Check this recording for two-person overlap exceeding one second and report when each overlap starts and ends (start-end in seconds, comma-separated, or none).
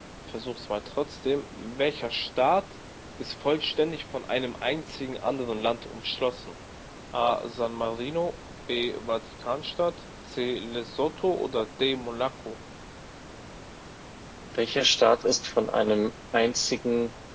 none